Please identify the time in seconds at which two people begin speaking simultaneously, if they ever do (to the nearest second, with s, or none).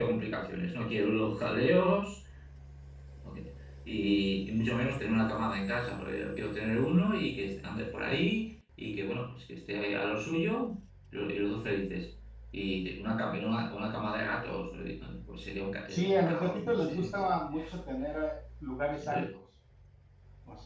16 s